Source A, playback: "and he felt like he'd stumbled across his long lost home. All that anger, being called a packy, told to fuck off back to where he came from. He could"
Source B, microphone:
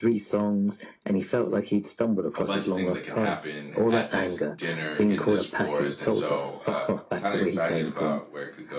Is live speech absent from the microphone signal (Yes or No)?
No